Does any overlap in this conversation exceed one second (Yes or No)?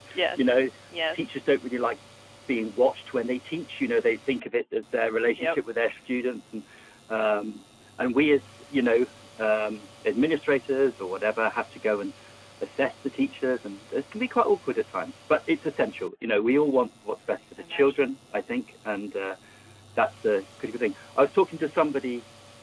No